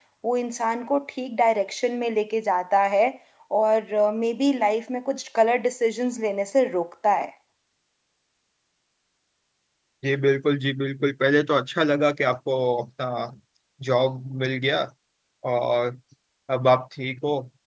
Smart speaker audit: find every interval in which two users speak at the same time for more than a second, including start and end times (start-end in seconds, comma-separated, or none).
none